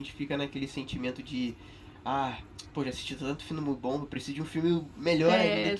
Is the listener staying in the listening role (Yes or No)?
No